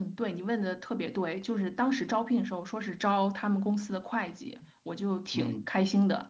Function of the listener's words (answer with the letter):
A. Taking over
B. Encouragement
B